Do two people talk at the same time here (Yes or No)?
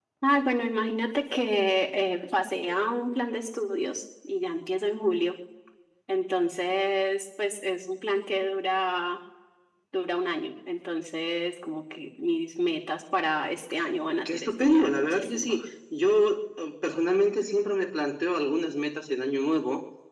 Yes